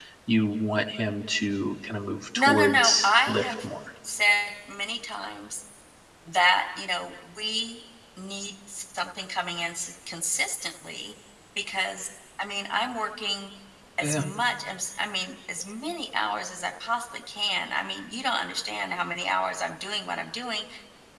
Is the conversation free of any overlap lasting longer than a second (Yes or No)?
No